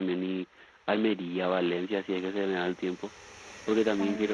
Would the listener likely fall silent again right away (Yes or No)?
Yes